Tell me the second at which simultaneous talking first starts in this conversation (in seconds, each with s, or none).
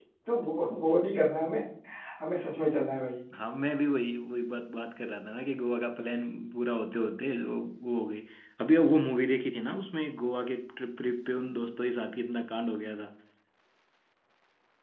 none